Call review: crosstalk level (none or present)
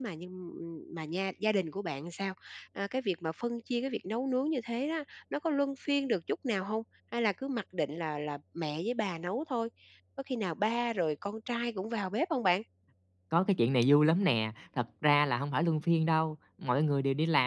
none